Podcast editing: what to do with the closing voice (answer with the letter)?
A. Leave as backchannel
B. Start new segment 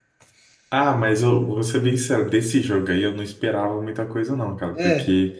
A